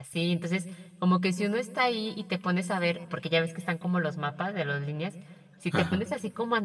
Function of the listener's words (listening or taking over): listening